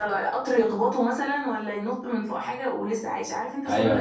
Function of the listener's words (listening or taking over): taking over